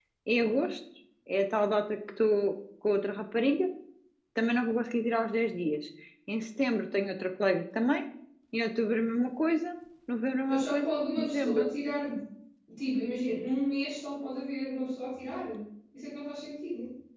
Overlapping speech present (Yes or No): Yes